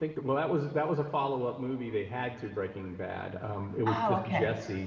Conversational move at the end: listening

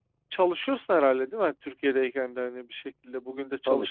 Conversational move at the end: taking over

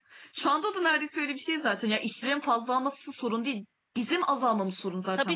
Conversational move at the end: taking over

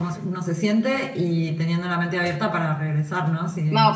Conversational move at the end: taking over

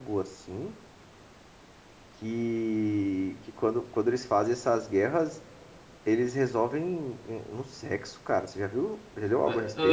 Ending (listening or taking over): taking over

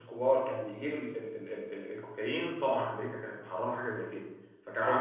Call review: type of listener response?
listening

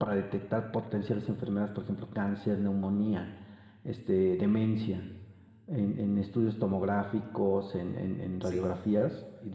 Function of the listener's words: listening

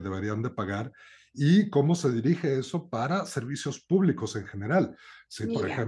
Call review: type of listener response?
listening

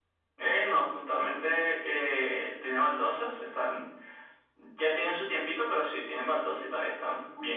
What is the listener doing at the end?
taking over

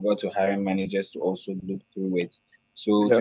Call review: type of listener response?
listening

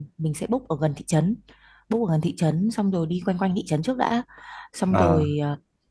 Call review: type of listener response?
listening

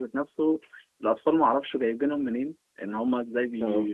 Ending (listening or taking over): listening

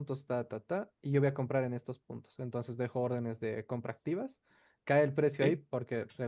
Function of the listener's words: listening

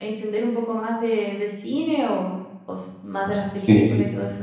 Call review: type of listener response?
taking over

